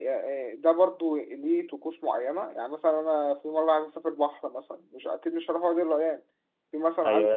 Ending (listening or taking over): taking over